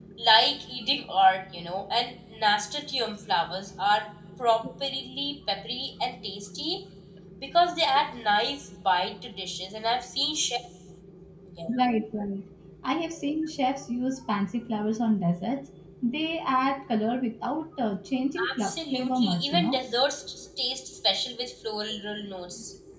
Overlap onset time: 18.4 s

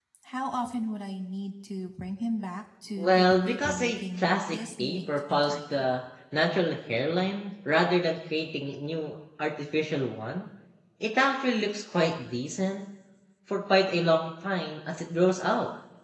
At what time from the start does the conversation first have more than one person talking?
3.0 s

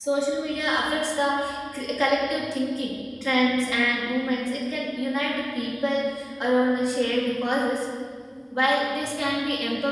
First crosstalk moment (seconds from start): none

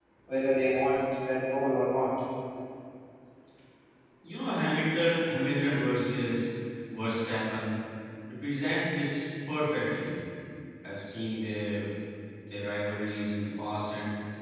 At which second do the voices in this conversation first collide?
none

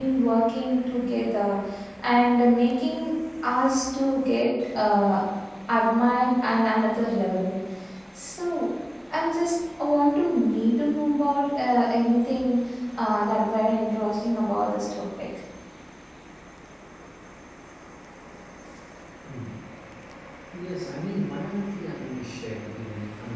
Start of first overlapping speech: none

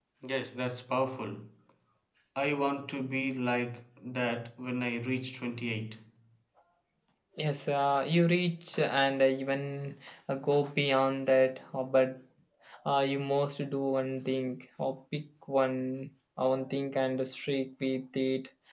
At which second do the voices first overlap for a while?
none

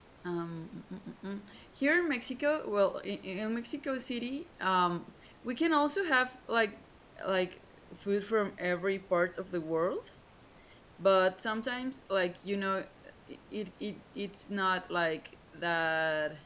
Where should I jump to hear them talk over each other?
none

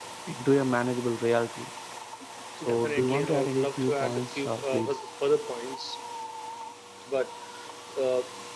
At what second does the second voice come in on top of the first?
2.7 s

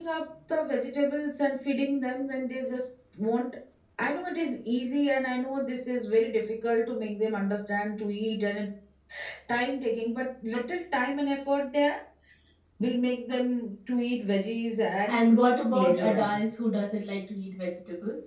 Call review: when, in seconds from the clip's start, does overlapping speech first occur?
15.1 s

